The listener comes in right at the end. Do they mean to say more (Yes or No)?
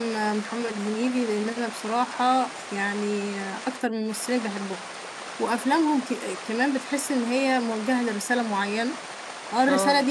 No